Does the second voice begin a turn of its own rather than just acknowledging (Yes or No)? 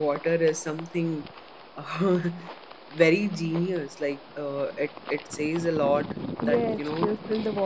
Yes